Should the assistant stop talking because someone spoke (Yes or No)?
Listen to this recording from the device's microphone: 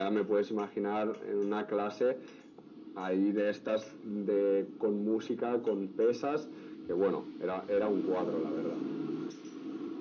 No